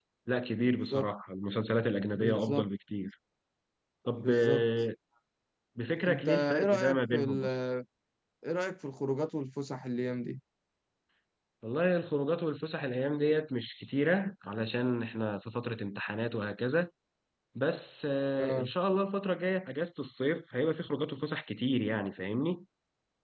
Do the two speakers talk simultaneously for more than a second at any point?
Yes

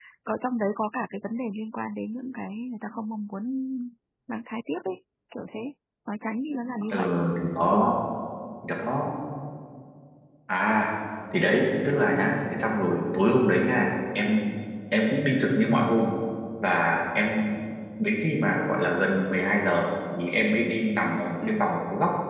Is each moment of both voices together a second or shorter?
Yes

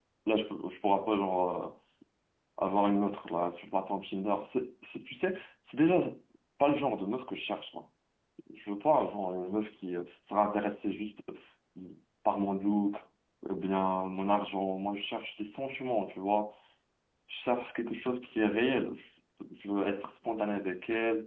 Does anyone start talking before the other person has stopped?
No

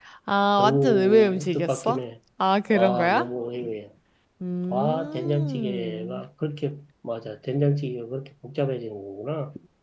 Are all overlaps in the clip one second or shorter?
No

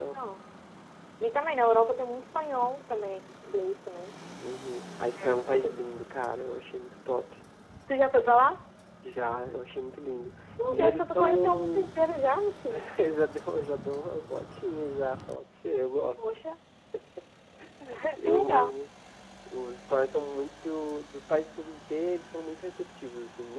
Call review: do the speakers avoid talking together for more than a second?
No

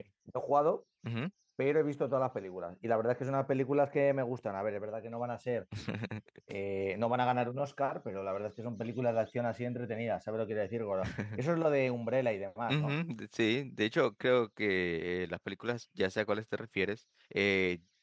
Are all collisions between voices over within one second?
Yes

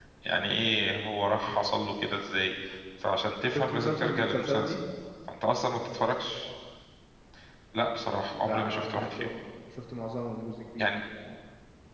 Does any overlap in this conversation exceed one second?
Yes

